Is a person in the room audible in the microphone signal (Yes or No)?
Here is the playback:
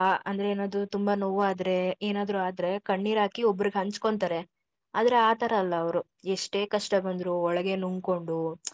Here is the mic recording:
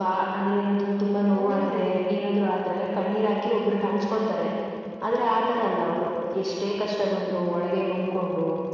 Yes